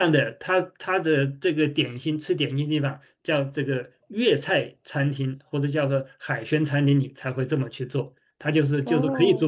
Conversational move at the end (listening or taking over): listening